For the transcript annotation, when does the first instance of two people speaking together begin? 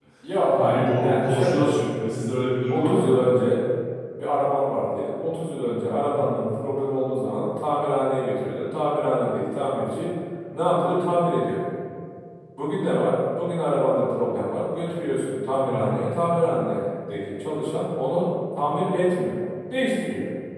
0.6 s

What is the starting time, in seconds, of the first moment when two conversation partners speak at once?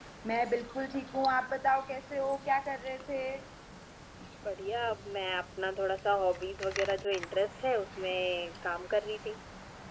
none

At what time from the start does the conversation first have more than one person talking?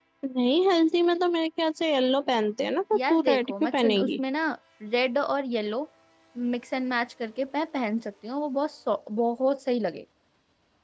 2.9 s

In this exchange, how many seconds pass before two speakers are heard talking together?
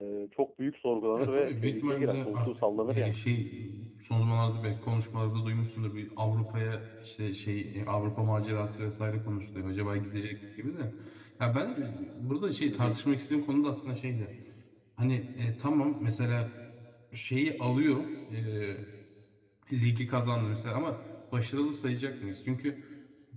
1.2 s

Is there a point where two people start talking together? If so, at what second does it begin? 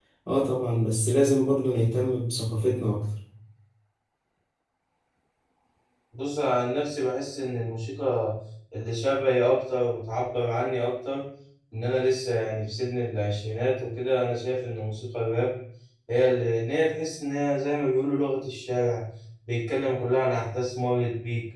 none

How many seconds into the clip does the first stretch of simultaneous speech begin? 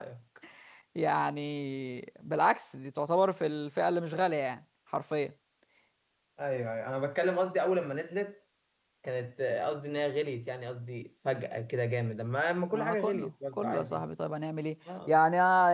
12.7 s

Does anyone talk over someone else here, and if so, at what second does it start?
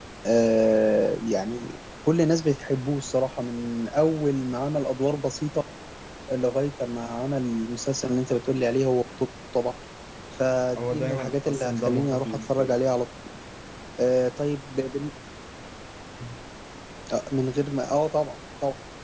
10.8 s

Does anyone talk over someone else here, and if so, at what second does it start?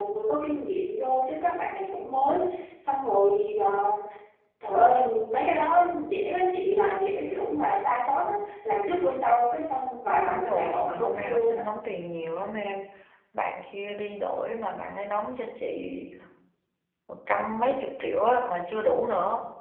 10.2 s

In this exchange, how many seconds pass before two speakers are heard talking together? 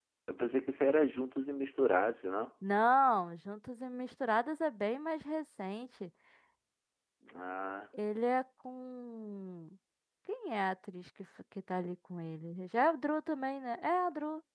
none

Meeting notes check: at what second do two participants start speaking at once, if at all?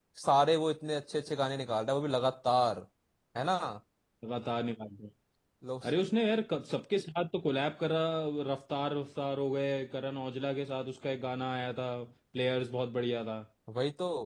none

